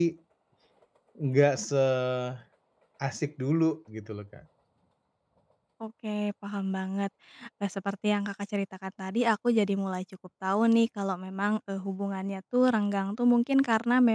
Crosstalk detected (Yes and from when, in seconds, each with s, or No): No